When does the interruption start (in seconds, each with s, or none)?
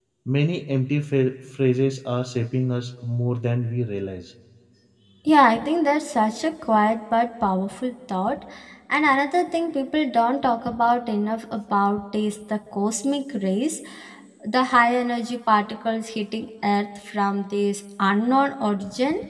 none